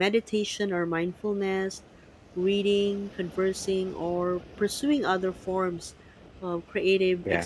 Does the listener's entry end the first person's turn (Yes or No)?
No